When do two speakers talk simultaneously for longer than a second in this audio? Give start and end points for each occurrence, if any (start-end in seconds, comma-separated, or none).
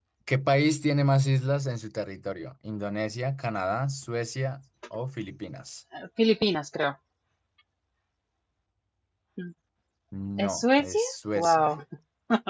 10.4-11.7